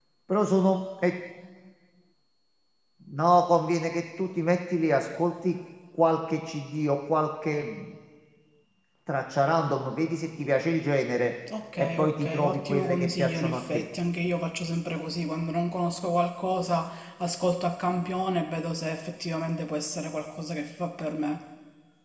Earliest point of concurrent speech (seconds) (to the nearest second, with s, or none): 12 s